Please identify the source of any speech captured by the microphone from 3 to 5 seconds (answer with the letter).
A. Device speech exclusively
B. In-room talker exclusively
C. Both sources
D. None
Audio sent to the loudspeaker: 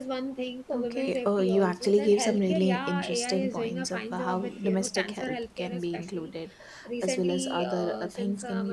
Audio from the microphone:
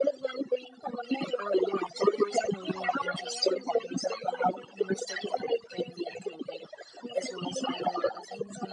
A